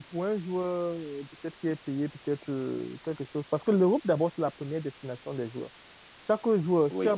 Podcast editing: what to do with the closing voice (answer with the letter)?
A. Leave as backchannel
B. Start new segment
A